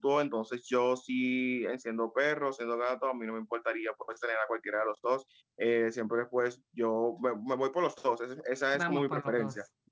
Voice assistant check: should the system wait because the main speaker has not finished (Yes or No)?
No